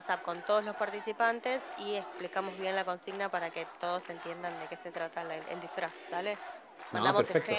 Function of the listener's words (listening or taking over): listening